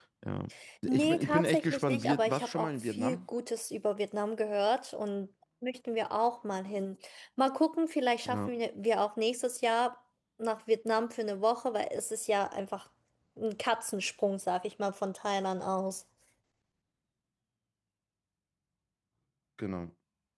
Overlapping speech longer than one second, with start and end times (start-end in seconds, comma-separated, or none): 0.9-3.2